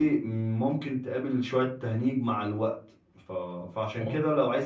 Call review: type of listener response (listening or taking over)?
listening